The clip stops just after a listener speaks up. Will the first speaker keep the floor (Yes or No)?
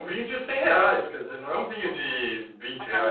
No